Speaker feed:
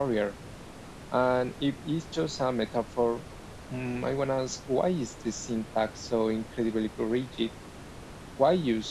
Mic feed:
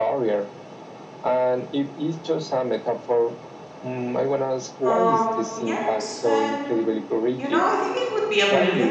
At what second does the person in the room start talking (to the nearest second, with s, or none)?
5 s